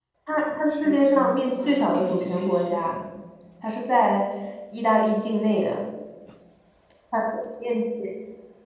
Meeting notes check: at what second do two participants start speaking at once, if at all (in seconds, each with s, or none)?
1.1 s